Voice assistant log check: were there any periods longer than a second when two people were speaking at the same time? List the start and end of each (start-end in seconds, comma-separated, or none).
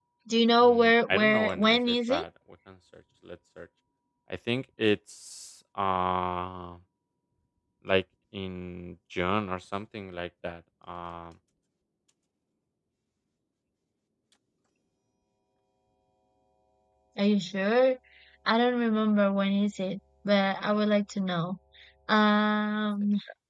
0.6-2.2